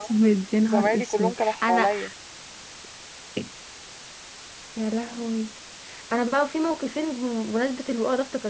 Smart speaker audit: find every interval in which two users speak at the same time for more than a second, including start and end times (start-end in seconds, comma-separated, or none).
0.6-1.9